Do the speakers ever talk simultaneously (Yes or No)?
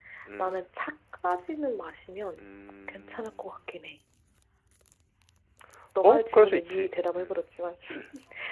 Yes